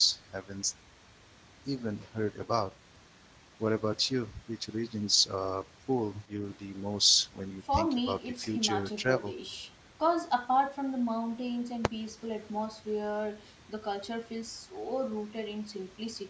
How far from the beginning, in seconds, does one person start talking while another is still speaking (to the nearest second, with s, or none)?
8 s